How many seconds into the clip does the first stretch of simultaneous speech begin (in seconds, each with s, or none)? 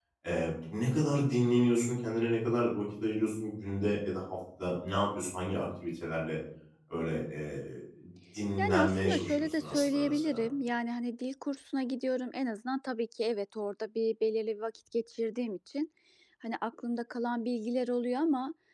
8.6 s